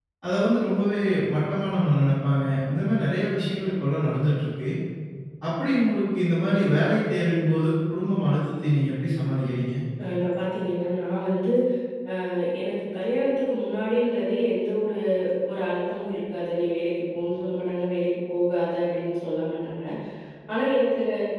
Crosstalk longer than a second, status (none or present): none